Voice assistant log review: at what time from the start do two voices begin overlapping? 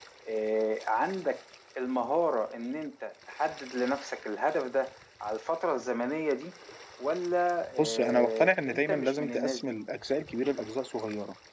8 s

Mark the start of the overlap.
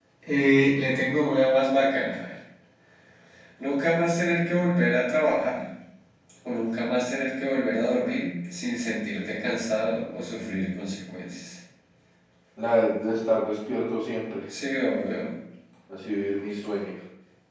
none

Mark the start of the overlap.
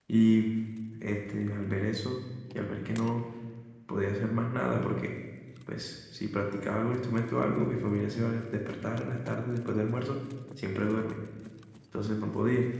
none

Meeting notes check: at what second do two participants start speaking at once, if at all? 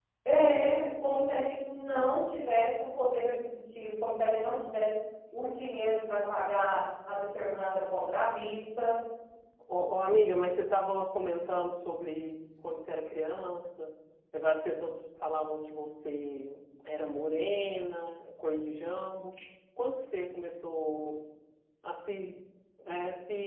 none

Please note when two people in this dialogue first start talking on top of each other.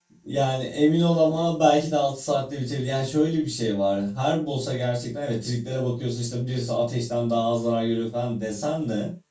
none

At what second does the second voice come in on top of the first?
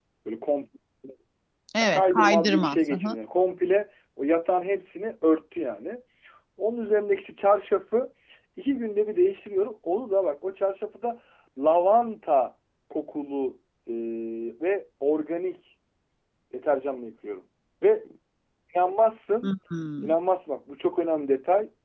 2 s

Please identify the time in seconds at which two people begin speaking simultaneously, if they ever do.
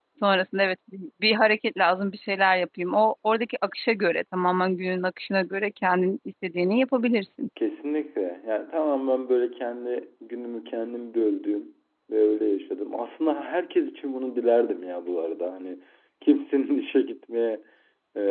none

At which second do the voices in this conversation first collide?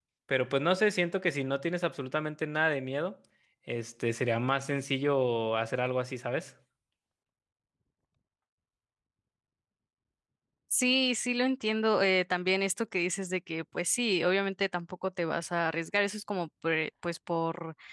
none

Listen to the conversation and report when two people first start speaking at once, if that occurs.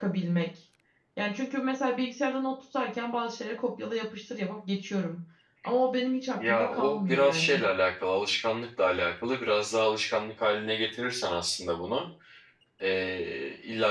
6 s

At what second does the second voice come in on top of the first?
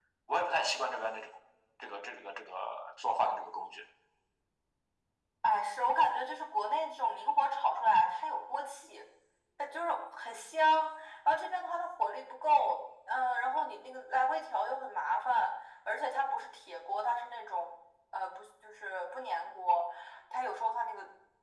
none

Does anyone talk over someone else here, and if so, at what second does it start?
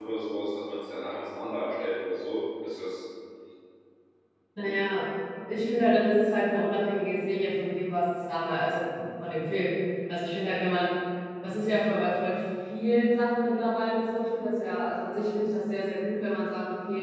none

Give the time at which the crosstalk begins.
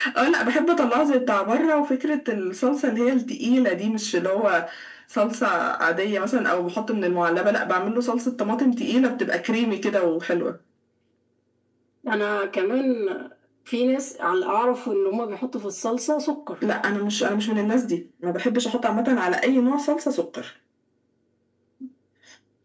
none

